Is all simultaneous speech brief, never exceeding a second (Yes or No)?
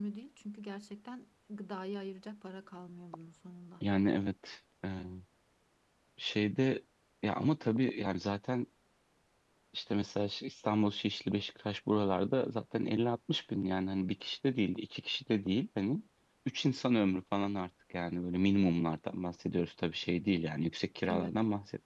Yes